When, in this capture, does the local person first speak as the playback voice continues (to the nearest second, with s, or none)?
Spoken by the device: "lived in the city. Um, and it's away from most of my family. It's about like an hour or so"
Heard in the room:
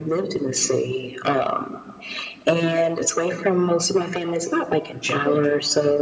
5 s